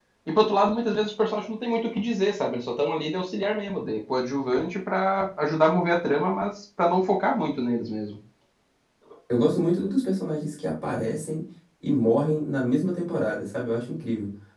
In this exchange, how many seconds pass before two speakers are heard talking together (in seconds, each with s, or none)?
none